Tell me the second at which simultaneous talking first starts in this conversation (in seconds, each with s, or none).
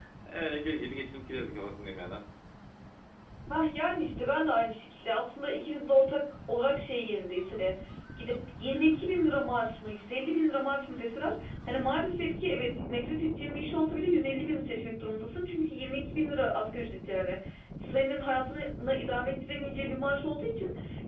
none